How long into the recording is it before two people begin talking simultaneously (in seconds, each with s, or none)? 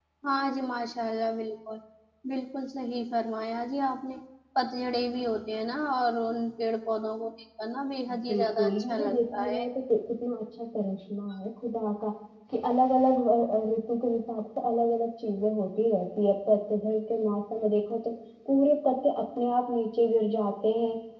8.2 s